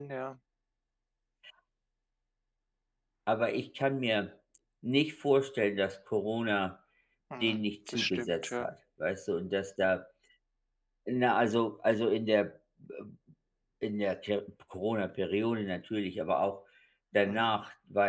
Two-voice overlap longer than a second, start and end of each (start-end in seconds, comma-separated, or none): 7.4-8.7